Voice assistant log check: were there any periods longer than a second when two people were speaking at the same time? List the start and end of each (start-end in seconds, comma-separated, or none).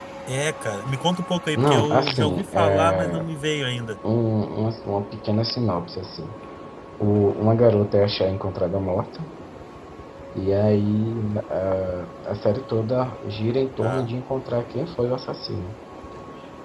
1.6-3.3